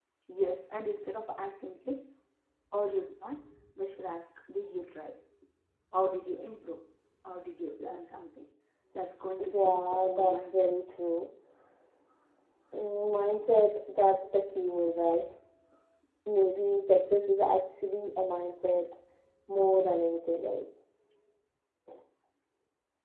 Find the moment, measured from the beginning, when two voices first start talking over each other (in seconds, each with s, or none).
9.4 s